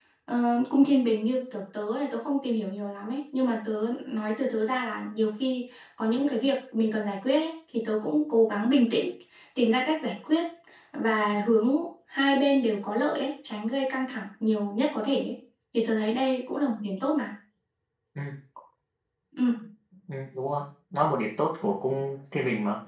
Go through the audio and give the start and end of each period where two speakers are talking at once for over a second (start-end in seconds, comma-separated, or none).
none